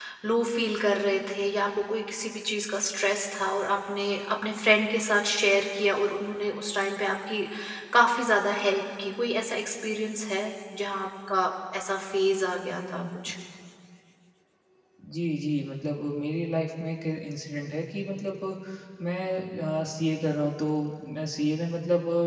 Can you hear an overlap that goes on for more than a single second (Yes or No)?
No